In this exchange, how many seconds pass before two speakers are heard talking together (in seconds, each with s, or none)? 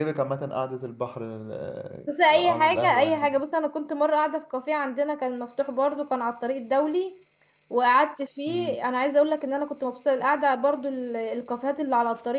2.1 s